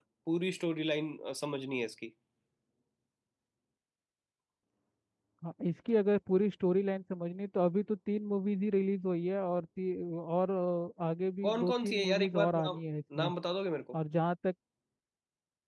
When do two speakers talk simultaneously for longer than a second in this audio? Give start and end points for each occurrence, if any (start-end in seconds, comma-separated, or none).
11.4-12.8